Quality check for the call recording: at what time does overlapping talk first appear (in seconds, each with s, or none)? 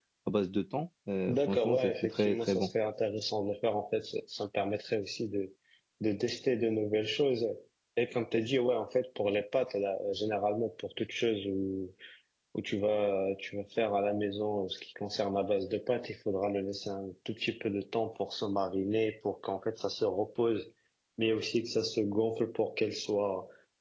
1.3 s